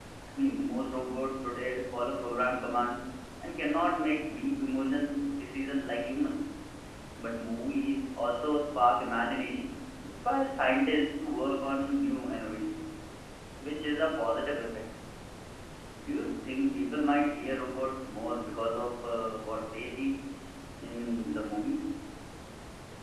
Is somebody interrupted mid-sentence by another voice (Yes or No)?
No